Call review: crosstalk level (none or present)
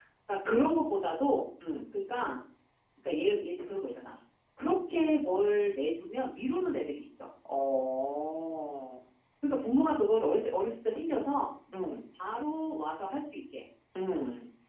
none